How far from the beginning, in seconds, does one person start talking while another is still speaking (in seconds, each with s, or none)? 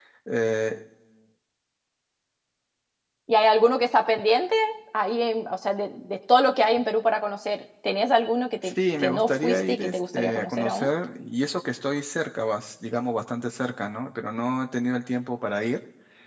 8.6 s